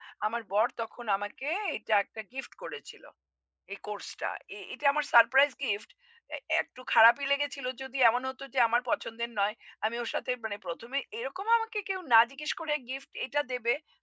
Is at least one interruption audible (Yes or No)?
No